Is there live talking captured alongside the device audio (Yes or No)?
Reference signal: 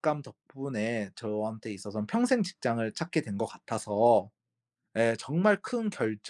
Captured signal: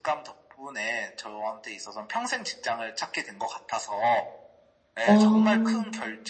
Yes